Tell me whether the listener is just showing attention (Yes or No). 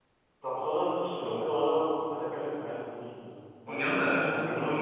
No